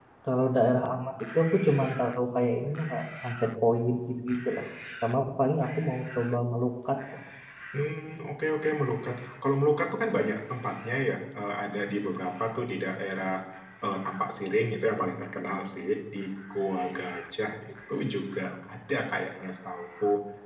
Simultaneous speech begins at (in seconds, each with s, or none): none